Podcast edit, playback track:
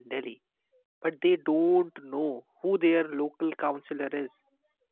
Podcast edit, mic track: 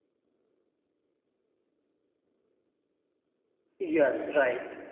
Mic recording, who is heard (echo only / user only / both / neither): user only